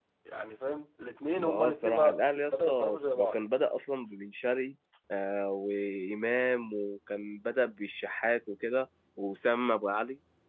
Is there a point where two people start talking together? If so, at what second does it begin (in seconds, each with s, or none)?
1.4 s